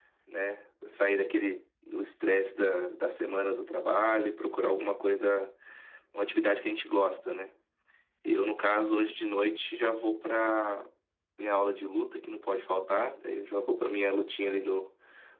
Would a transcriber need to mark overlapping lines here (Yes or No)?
No